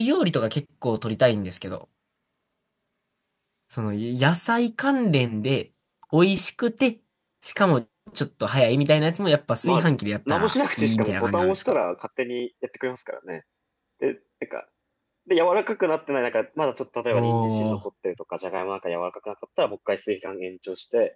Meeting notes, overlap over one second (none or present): present